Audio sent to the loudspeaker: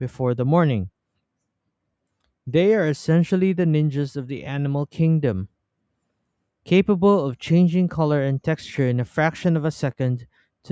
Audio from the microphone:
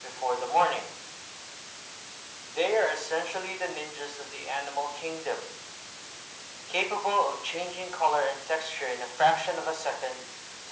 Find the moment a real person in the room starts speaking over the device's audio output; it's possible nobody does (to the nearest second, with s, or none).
none